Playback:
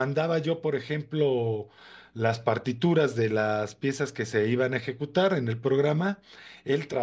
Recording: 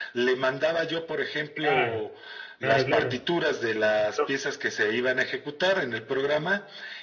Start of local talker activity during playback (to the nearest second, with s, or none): 2 s